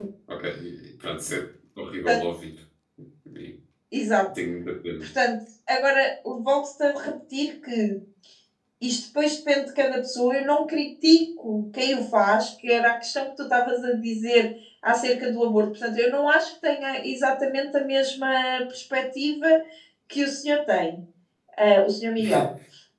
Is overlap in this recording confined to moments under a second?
Yes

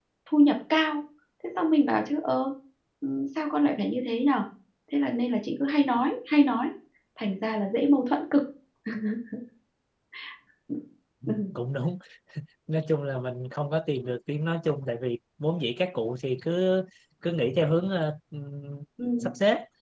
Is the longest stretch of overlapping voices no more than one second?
Yes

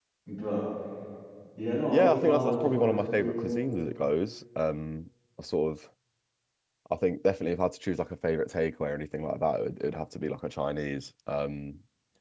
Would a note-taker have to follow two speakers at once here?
Yes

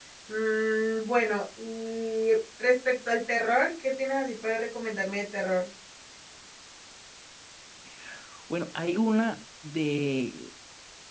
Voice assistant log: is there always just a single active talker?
Yes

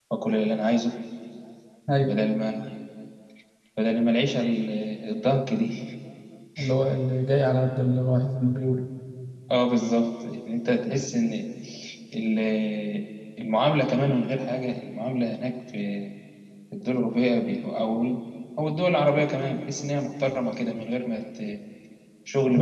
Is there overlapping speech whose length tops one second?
No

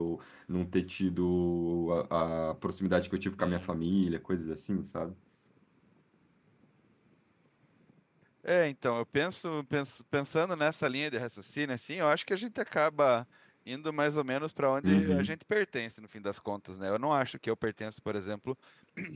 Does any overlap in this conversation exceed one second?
No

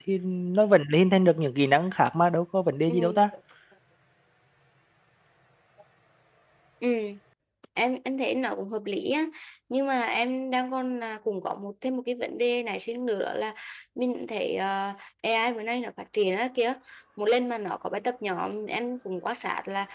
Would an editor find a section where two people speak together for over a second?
No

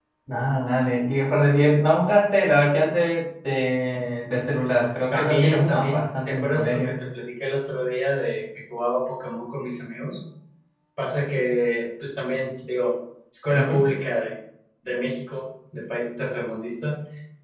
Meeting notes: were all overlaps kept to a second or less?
No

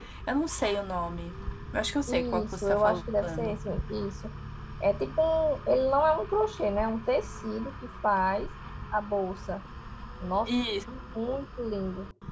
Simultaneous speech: Yes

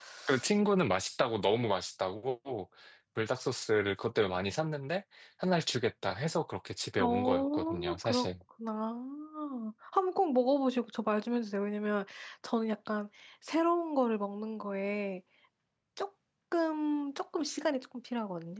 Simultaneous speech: Yes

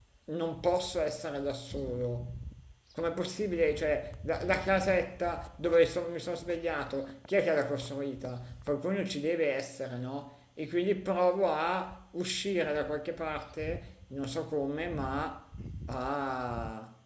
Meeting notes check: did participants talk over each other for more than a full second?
No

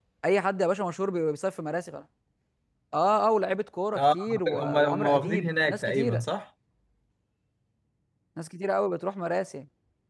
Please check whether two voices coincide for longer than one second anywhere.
Yes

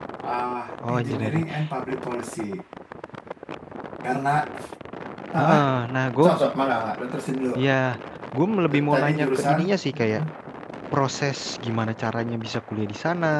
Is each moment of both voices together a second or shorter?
No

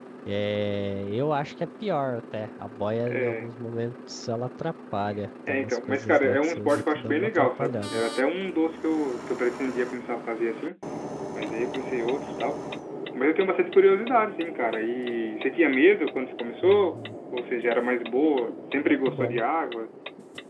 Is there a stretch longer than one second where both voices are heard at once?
Yes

